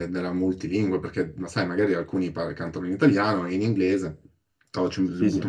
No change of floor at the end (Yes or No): Yes